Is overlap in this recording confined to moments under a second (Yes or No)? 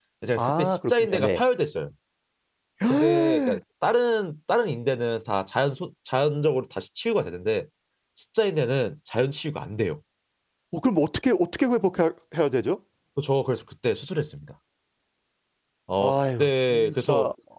No